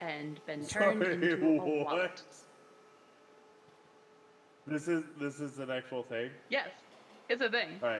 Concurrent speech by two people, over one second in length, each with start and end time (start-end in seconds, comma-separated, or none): 0.6-2.0